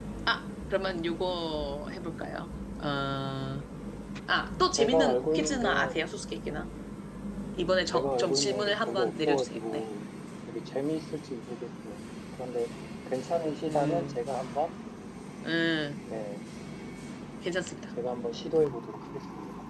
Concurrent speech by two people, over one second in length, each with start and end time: 4.8-6.0, 7.9-9.9

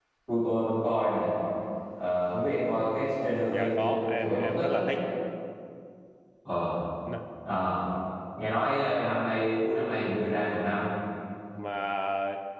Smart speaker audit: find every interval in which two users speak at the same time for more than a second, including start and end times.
3.5-4.8

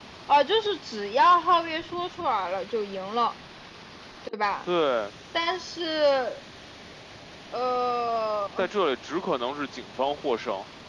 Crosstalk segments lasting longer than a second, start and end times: none

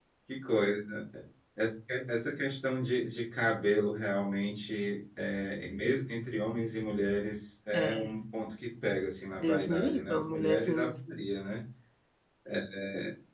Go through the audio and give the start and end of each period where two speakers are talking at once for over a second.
9.4-10.8

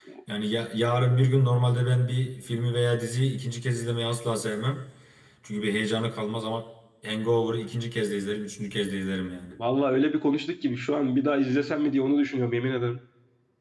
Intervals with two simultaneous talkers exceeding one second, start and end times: none

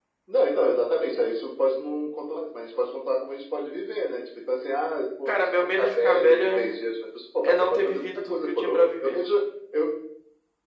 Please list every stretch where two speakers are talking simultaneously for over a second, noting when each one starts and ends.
5.3-6.7, 7.4-9.2

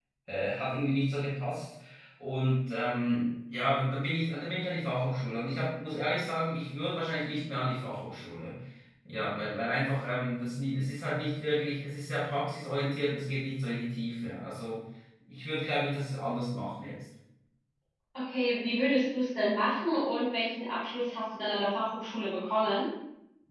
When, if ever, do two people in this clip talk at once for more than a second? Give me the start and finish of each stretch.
none

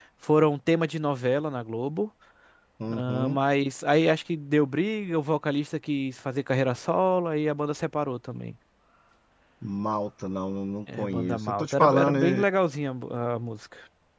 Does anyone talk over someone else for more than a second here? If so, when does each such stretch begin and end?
11.0-12.4

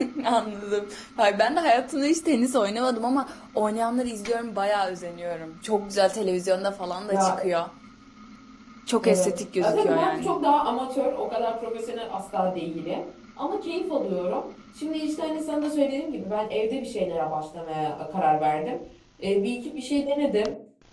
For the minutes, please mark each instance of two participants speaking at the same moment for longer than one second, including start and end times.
9.0-10.4

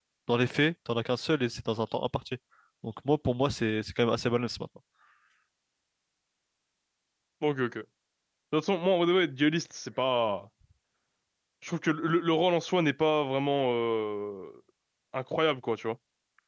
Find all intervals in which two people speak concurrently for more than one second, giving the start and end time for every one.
none

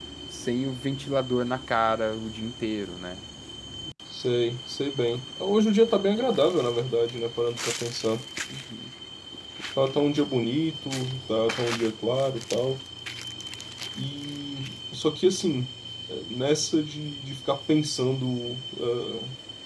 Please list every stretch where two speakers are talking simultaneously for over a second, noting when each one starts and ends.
none

